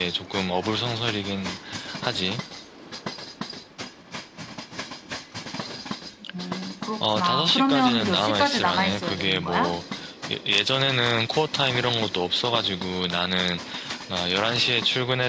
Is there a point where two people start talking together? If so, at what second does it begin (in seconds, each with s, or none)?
7.0 s